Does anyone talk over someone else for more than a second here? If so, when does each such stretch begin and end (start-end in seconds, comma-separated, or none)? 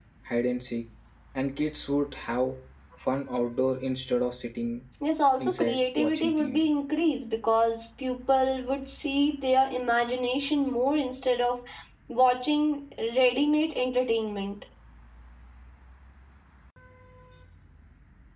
5.4-6.7